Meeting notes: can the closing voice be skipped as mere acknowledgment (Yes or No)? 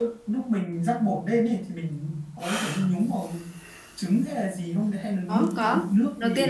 No